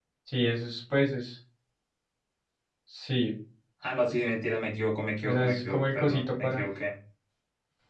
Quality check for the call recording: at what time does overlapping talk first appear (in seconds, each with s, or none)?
5.2 s